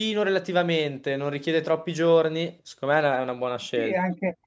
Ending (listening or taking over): taking over